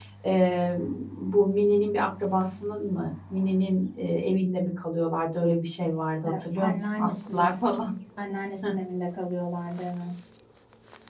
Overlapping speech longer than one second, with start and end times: 6.2-7.5

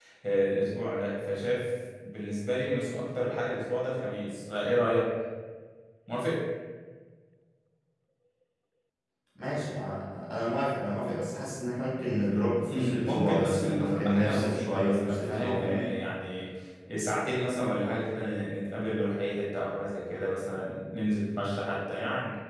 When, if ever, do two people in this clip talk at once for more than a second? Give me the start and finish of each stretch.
12.7-15.9

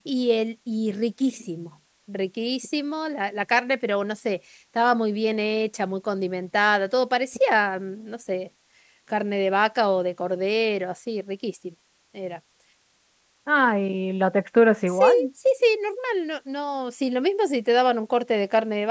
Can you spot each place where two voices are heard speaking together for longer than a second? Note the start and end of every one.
none

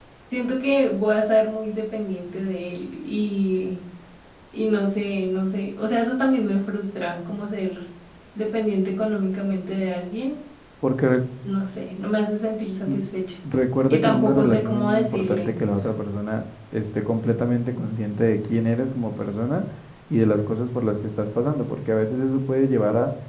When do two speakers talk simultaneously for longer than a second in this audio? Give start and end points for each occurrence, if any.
13.9-15.6

